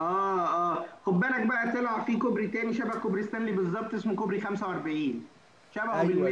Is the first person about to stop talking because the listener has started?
Yes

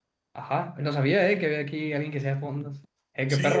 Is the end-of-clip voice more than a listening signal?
Yes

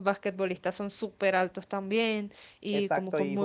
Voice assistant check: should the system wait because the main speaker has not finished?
No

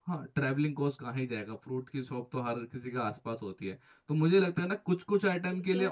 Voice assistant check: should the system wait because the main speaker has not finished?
Yes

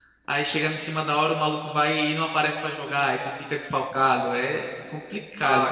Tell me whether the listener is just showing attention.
No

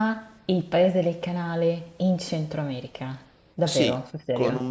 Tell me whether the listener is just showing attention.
No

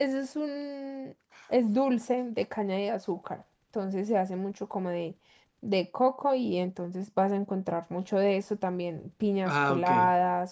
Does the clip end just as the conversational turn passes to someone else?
No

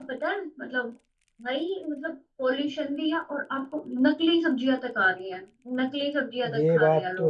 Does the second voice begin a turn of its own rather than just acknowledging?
Yes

